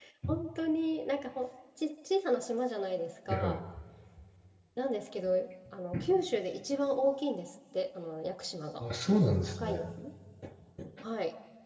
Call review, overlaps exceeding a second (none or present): none